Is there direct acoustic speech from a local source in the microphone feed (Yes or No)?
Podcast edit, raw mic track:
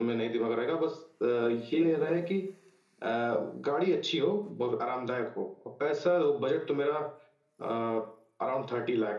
Yes